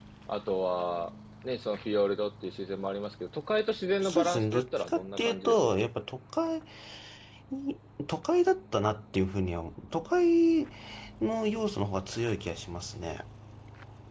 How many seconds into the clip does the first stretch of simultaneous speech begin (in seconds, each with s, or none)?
4.0 s